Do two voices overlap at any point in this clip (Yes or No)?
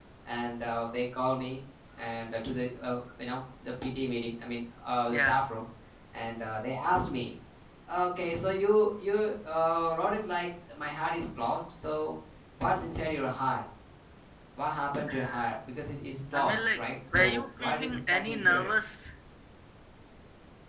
Yes